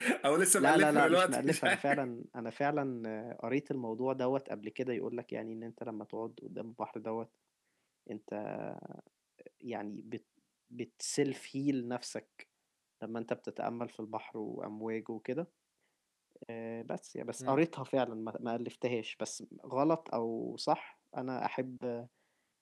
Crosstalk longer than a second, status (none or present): present